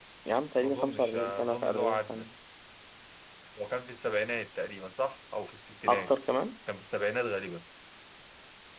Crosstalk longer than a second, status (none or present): present